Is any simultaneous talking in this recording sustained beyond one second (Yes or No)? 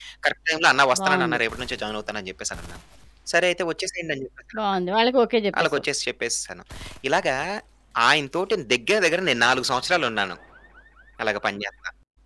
No